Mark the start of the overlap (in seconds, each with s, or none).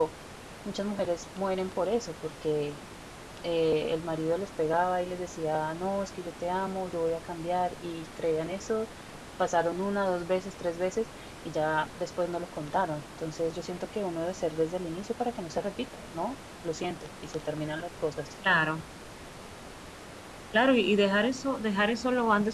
none